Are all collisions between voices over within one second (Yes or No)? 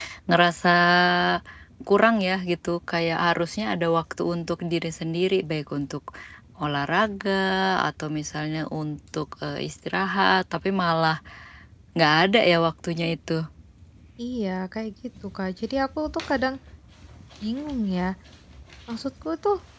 Yes